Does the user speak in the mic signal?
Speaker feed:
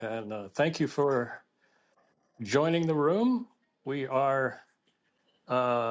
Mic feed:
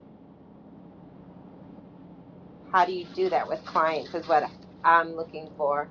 Yes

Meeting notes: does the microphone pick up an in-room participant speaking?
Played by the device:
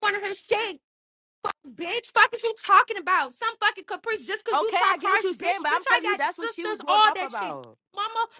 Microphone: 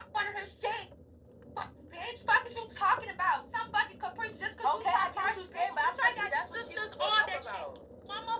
No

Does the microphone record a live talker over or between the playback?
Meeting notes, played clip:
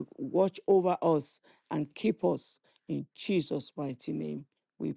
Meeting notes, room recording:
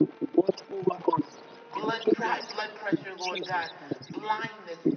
Yes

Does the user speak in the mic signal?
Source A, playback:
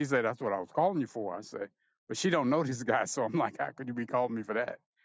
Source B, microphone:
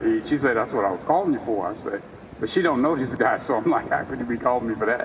No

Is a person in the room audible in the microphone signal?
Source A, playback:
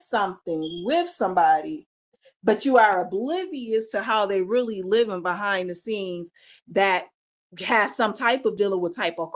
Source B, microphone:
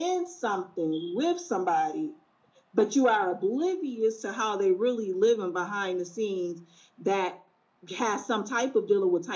No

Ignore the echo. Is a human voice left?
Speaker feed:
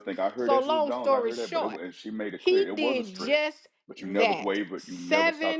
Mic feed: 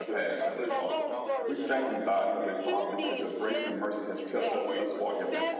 Yes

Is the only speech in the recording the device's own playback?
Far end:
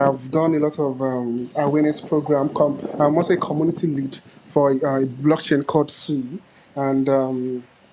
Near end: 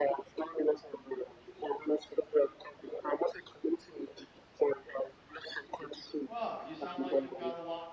No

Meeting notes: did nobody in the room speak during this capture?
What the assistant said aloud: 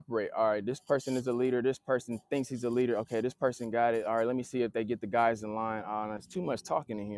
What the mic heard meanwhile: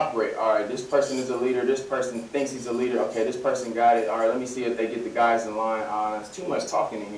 Yes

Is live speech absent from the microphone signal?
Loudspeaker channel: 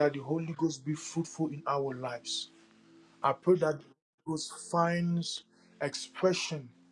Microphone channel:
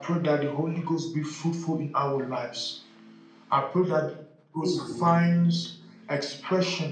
No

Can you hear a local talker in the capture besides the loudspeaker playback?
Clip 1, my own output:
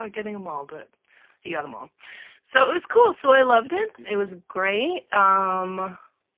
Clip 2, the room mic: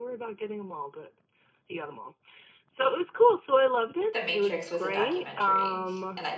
Yes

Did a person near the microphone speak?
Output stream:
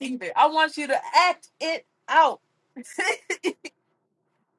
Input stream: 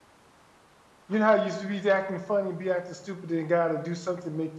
Yes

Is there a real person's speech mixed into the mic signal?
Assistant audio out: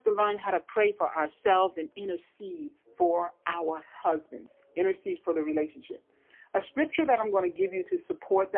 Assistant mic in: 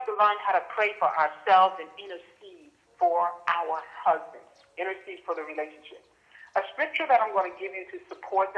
No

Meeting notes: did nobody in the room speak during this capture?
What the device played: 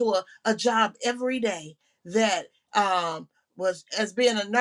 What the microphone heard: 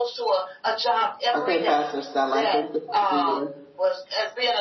No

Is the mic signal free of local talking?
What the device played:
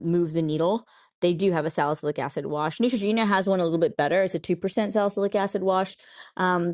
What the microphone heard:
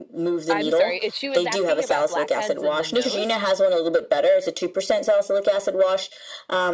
No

